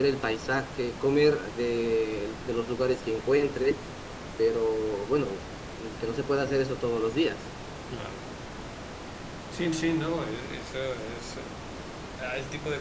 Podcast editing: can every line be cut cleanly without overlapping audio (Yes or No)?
Yes